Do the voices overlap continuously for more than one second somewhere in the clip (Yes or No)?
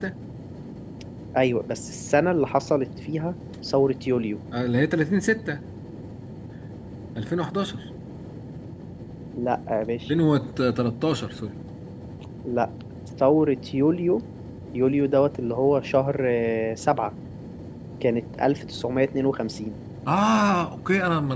No